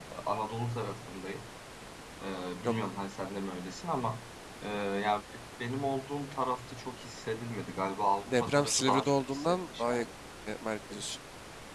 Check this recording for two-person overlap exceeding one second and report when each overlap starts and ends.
8.3-10.0

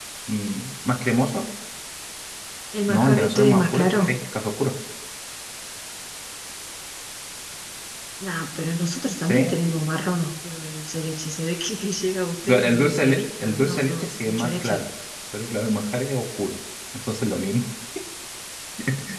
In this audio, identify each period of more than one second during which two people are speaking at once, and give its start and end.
2.9-4.1, 12.4-14.8

